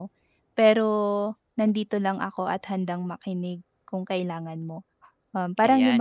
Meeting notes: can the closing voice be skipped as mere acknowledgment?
No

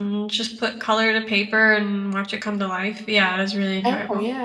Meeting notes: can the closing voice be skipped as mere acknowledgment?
No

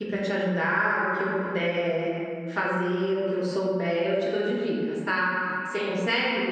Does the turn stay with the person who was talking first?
Yes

